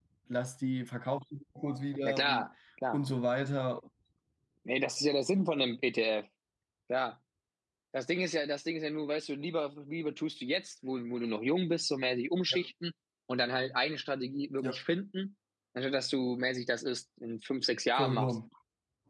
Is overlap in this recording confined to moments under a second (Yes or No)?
Yes